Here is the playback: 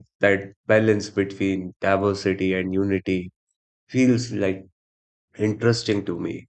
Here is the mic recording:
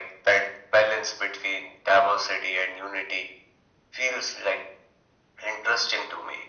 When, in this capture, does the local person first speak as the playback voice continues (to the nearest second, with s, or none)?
none